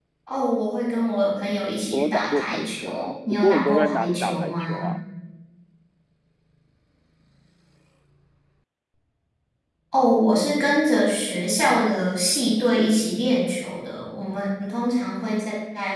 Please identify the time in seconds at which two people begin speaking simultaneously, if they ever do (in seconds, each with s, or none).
1.9 s